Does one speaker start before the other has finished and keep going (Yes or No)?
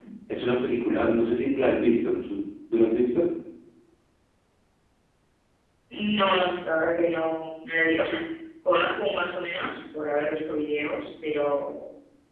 No